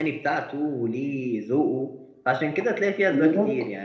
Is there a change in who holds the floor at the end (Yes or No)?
No